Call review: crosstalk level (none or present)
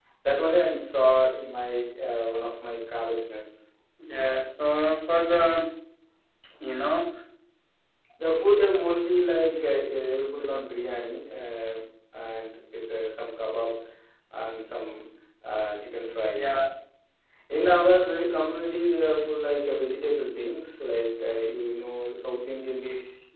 none